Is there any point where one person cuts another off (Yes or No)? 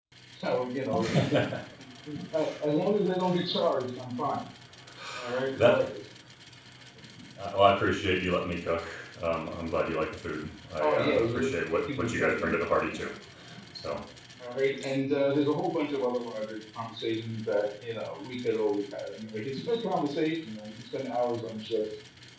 Yes